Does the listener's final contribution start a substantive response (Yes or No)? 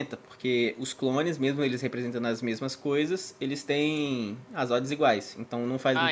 Yes